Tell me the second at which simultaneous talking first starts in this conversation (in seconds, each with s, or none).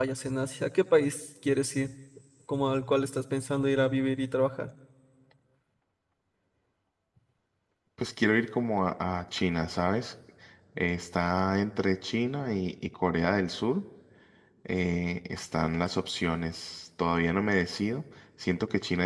none